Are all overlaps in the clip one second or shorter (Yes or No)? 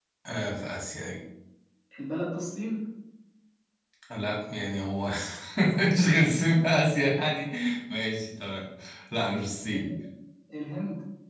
Yes